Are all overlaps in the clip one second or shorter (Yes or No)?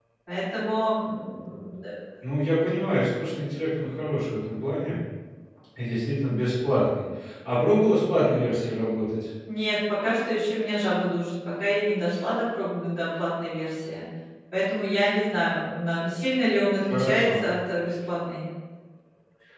Yes